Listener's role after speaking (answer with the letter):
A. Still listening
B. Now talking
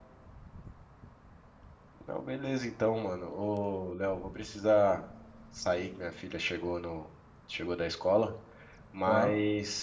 A